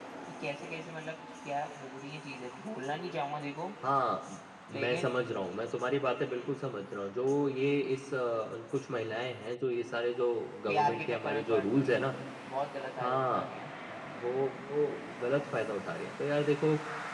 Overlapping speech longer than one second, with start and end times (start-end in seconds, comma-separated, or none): 10.7-12.0